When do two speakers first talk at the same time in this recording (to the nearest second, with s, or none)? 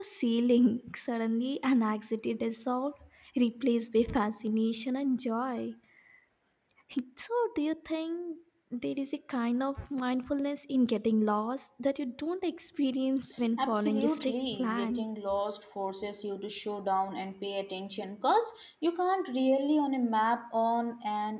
14 s